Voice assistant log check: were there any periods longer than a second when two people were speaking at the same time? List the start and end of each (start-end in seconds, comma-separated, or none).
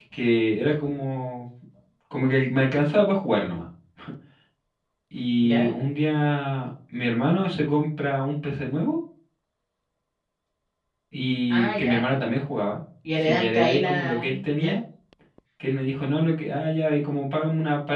13.2-14.8